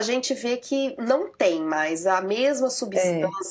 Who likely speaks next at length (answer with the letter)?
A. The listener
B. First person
B